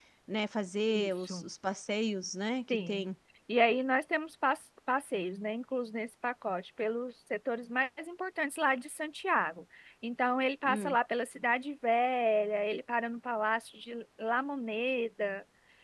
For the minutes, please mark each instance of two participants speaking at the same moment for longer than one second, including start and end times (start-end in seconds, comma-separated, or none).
none